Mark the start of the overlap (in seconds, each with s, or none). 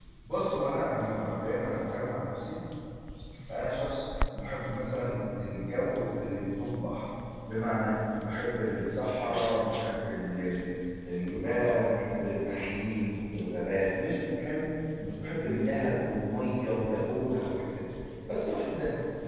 none